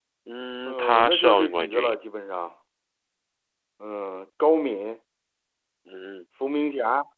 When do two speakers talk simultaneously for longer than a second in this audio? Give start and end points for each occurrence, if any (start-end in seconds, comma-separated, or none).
0.7-1.9